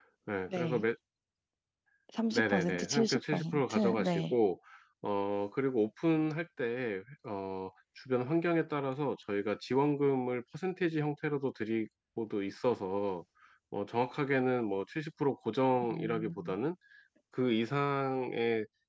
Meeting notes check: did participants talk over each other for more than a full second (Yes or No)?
Yes